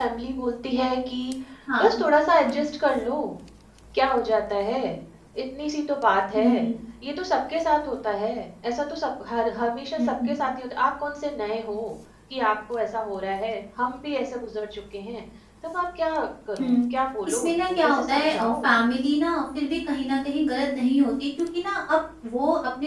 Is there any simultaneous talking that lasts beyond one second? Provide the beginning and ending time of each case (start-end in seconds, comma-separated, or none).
17.3-18.7